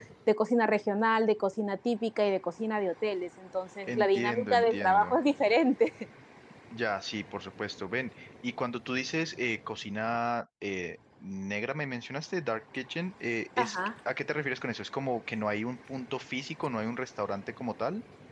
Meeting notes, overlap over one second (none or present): present